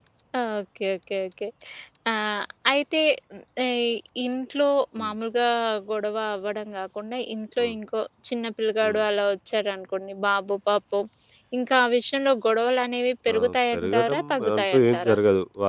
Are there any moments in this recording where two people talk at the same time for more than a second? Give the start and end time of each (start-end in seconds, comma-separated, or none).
13.3-15.2